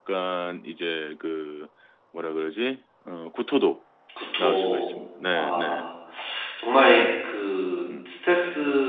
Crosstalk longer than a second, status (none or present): none